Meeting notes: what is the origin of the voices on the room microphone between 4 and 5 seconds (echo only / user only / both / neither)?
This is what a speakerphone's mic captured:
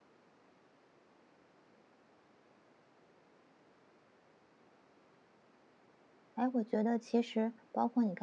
neither